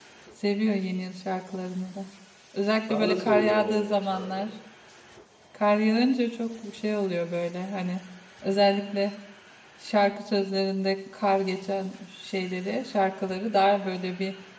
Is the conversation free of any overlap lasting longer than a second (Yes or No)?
No